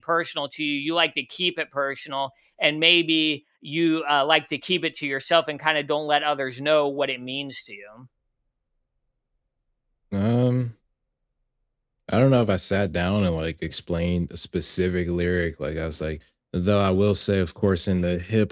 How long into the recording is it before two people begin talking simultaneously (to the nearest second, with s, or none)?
none